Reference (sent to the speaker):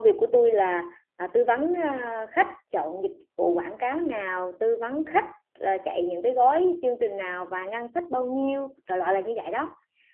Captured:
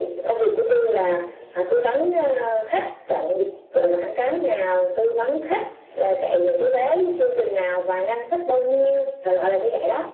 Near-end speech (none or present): none